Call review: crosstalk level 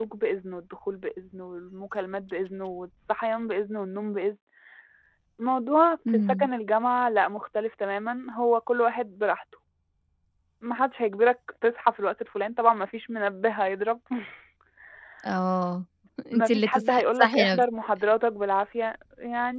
present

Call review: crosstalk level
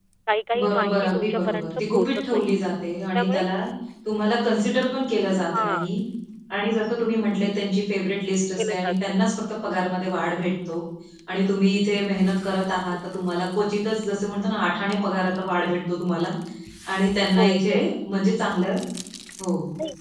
present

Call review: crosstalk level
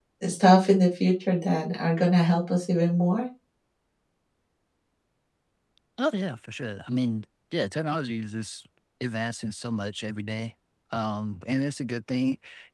none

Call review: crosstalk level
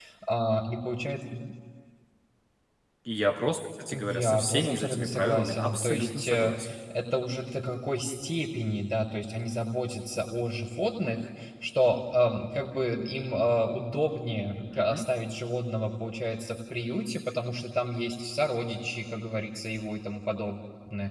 present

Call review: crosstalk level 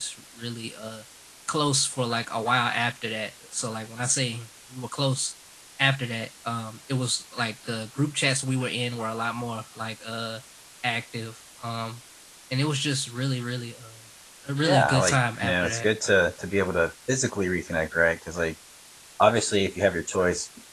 present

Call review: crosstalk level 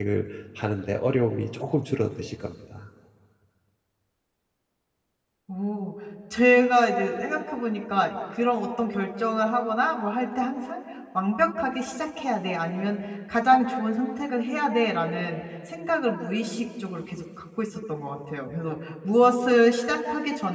none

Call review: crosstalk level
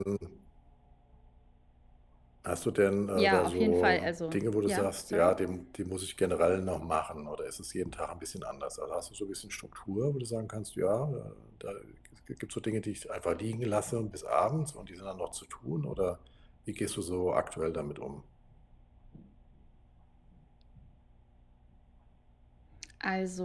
present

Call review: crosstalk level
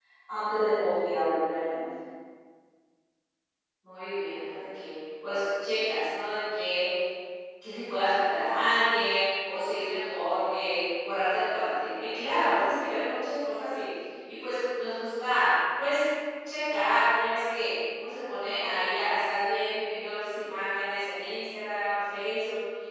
none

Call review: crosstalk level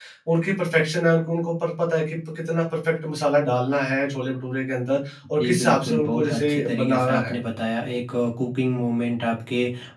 present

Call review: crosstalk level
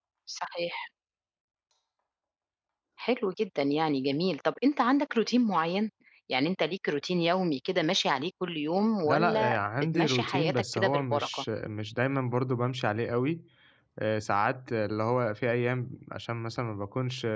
present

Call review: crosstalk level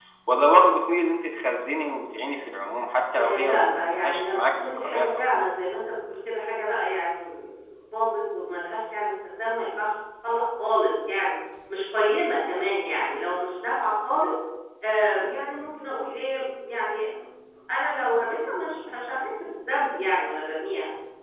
present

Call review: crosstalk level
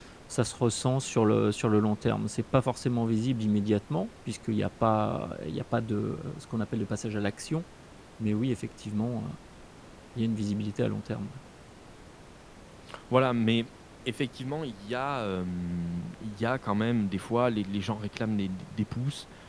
none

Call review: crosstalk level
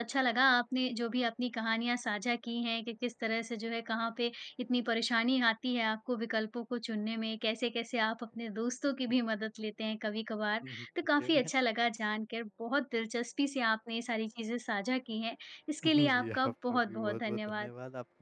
present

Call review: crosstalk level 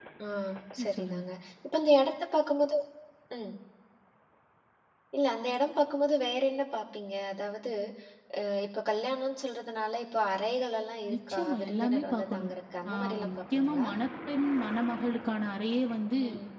present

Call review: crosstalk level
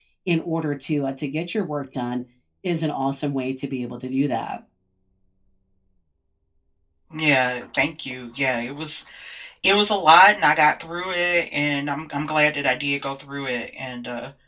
none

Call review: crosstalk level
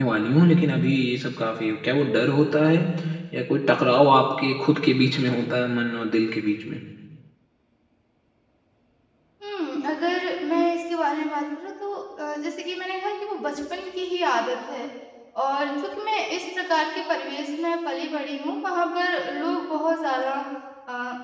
none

